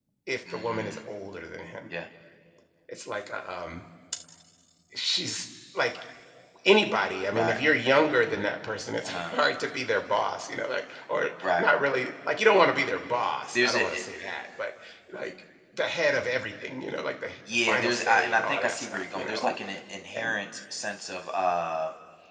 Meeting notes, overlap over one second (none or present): present